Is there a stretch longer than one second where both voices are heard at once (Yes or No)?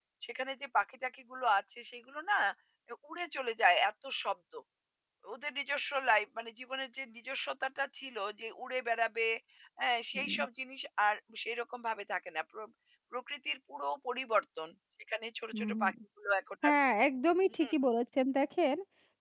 No